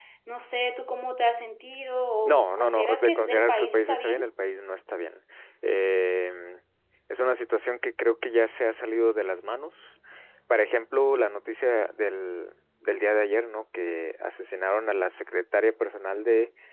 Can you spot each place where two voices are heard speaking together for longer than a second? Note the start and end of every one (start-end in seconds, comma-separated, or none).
2.2-4.3